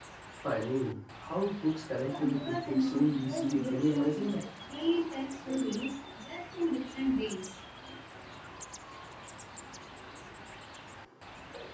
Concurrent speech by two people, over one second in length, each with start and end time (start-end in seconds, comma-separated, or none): 2.0-4.4